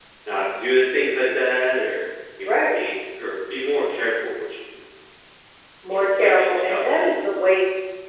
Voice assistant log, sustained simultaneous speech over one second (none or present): present